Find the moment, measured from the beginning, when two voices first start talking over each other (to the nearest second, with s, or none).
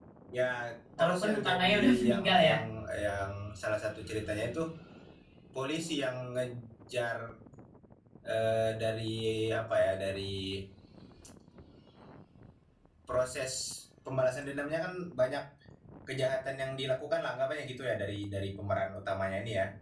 1 s